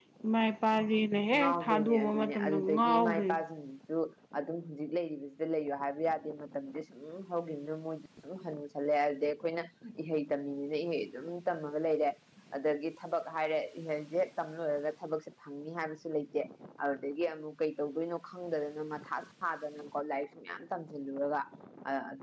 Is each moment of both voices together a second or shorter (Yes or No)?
No